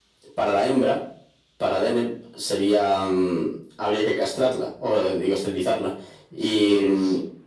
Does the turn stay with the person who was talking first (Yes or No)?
Yes